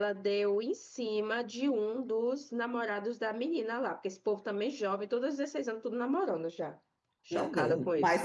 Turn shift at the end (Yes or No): Yes